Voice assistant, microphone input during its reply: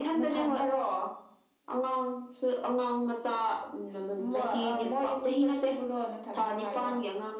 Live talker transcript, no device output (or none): none